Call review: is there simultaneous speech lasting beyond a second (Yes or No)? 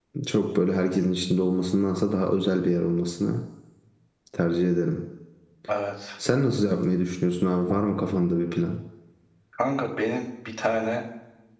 No